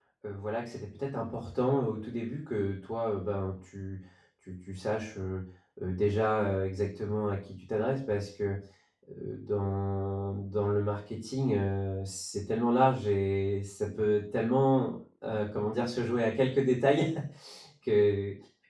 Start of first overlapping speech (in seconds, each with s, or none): none